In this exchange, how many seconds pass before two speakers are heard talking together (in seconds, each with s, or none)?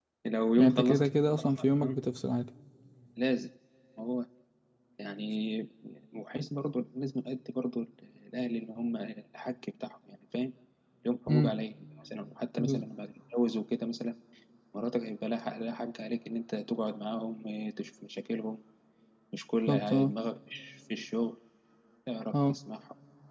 0.6 s